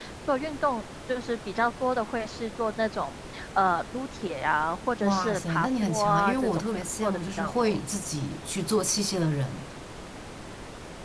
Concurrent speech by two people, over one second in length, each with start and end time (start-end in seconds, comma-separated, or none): 5.0-7.8